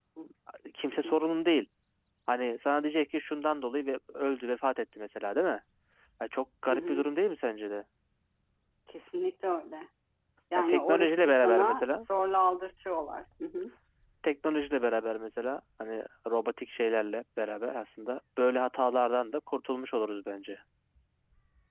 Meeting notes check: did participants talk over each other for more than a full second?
Yes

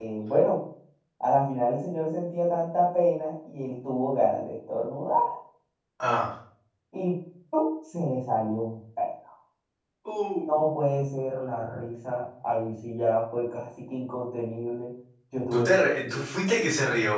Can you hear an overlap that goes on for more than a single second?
No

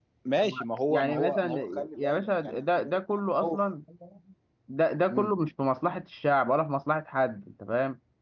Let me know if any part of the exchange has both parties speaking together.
Yes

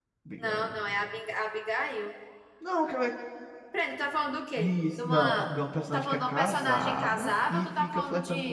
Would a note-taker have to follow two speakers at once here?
Yes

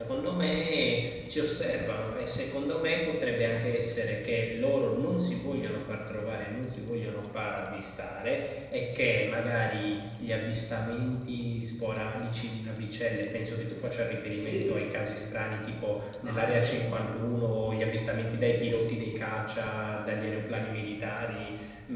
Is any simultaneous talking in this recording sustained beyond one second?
No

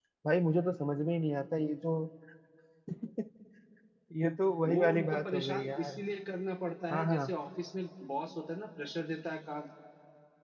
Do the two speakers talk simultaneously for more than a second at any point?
Yes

